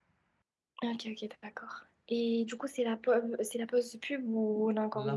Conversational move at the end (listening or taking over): taking over